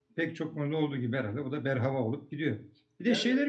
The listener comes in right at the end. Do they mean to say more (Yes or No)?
No